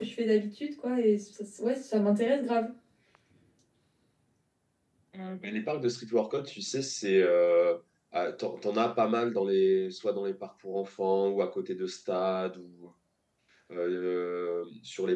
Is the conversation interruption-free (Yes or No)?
Yes